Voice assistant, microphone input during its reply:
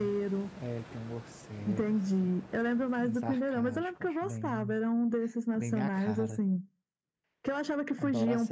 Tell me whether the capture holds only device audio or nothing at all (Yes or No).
No